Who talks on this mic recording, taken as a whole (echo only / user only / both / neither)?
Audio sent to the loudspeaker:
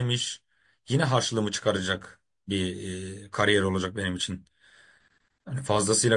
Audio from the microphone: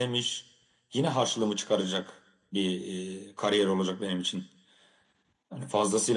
echo only